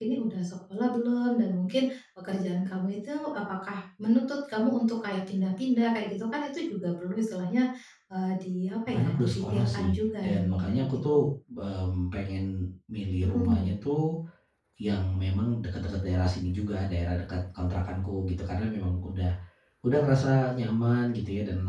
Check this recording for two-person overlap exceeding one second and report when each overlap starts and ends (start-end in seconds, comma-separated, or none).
9.0-11.2